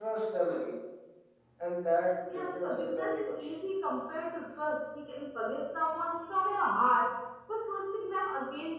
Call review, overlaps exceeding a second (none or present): present